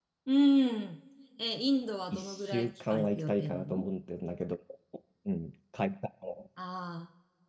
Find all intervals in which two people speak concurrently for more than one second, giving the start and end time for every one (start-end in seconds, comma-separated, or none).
2.1-3.8